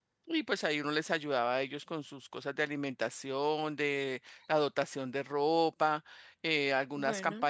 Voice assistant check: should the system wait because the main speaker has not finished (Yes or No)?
Yes